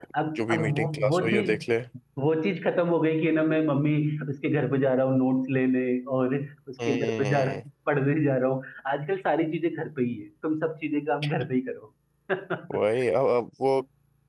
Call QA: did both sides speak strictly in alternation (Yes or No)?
No